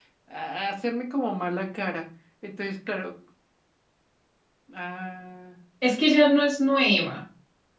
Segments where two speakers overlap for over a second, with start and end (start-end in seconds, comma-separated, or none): none